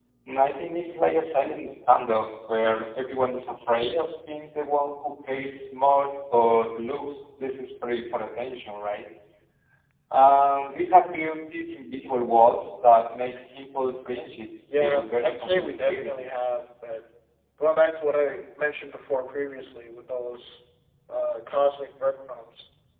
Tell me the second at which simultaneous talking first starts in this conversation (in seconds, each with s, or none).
14.7 s